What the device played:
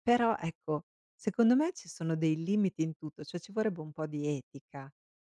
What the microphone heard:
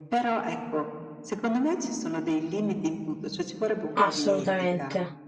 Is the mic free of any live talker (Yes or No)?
No